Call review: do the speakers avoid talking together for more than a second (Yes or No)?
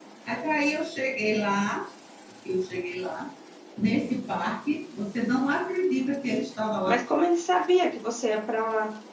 Yes